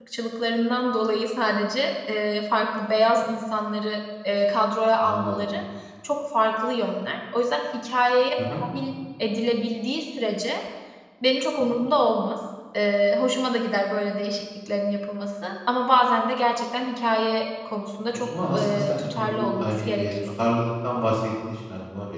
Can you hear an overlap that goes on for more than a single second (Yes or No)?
Yes